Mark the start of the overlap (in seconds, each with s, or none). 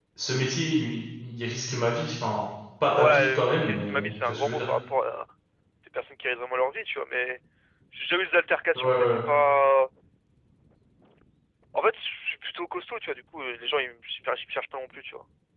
2.9 s